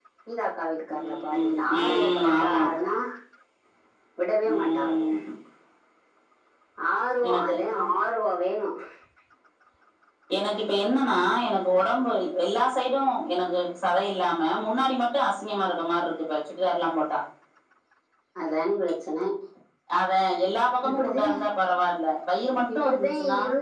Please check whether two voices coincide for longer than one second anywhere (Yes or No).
Yes